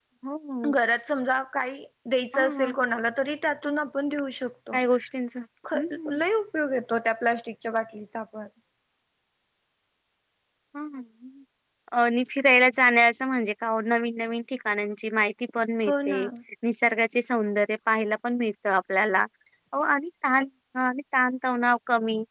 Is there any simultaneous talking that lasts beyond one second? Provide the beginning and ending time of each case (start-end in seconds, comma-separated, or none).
none